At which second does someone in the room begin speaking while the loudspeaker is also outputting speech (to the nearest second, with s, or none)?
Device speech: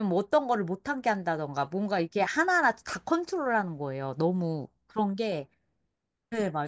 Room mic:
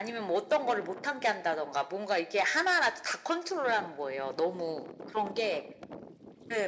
none